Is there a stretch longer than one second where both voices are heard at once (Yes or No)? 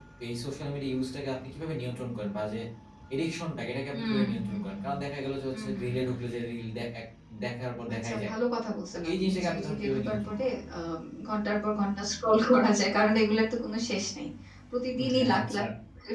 Yes